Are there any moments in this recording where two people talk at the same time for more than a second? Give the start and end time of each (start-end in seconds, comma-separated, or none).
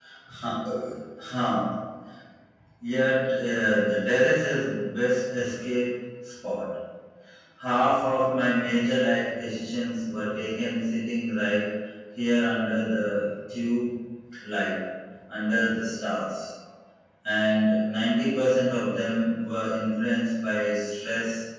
none